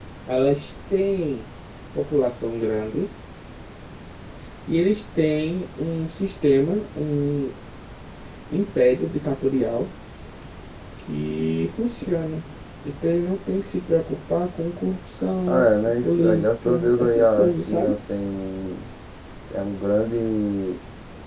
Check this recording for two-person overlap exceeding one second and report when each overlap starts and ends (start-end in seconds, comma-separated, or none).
15.5-18.0